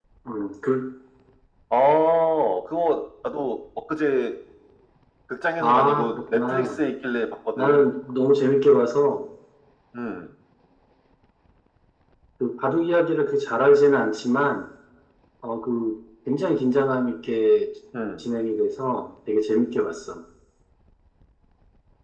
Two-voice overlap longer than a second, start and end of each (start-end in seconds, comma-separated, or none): 5.6-6.8